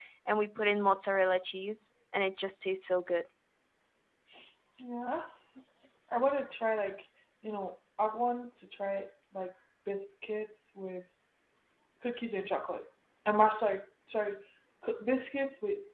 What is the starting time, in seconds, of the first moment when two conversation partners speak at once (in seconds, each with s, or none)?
none